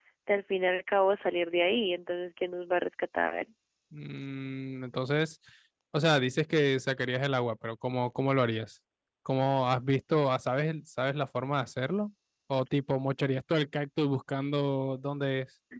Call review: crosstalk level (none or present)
none